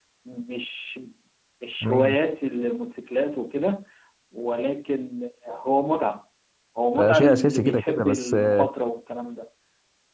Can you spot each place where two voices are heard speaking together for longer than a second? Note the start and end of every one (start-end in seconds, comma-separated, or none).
7.0-8.7